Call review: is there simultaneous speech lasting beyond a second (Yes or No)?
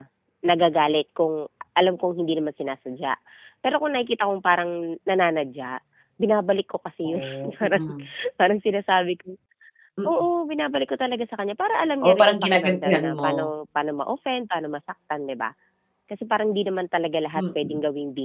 Yes